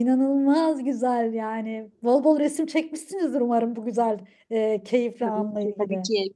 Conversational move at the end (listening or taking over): taking over